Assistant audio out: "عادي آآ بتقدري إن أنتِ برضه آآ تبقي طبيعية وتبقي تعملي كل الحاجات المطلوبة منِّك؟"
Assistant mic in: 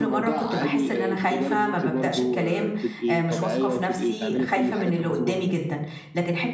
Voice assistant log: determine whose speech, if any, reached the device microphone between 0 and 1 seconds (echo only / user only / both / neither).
both